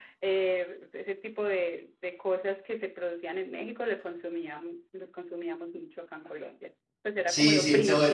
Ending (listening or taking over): taking over